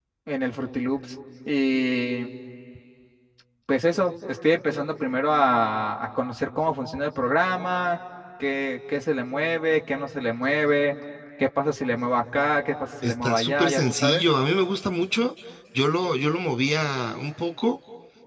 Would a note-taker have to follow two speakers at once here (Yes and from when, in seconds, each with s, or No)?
Yes, from 13.0 s